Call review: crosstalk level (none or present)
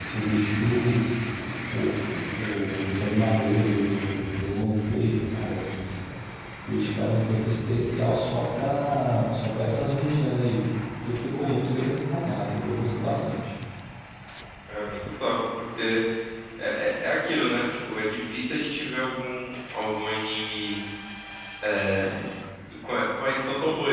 none